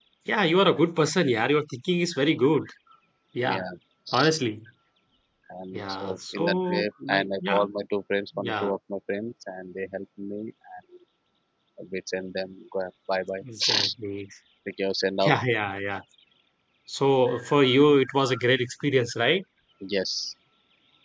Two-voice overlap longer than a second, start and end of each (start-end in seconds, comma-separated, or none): 5.7-7.6